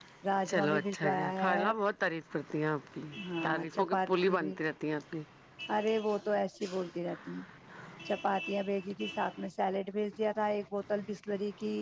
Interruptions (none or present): present